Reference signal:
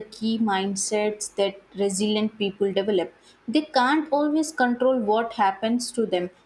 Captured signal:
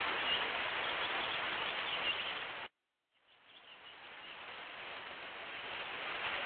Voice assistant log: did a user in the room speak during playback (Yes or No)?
No